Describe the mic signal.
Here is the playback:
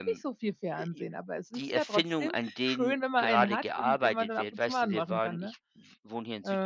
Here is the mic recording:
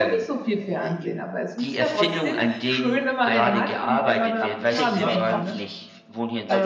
both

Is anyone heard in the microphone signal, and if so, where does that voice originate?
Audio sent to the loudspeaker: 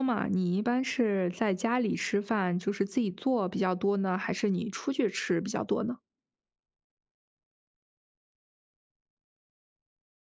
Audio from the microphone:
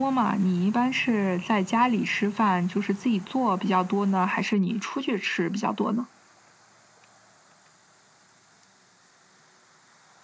echo only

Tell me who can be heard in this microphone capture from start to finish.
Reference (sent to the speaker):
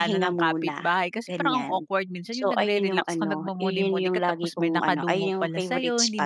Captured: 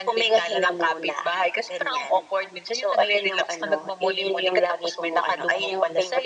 echo only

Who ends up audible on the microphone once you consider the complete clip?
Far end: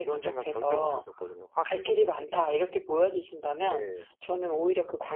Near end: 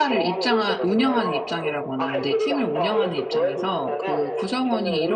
both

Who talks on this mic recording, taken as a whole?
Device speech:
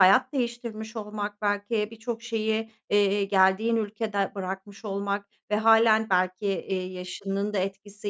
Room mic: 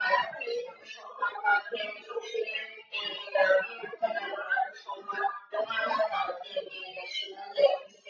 echo only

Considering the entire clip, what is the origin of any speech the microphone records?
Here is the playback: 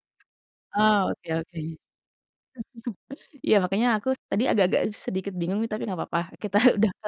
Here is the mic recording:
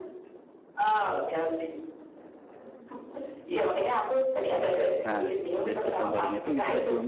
both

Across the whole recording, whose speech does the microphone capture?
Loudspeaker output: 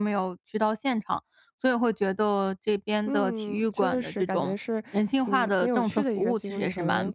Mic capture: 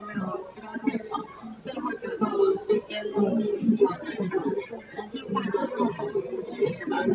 echo only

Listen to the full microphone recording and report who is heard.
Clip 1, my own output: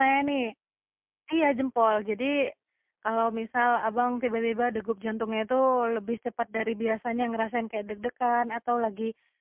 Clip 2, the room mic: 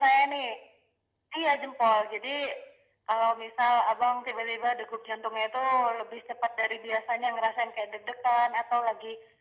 echo only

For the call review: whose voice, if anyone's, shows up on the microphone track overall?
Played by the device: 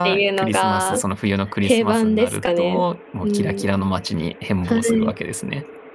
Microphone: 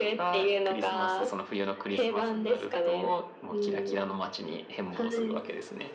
echo only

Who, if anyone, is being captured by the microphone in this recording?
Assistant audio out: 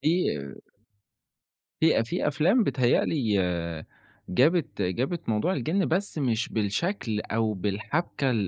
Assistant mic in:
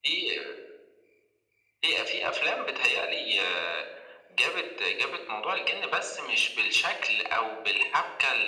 echo only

